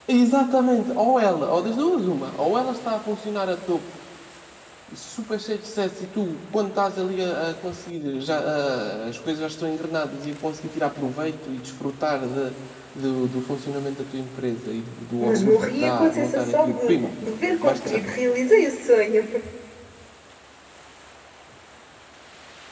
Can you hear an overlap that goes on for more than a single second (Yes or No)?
Yes